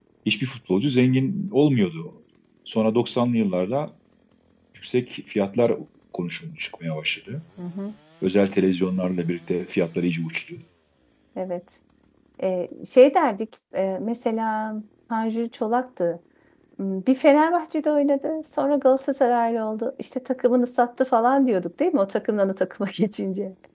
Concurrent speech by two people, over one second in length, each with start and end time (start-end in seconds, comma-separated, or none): none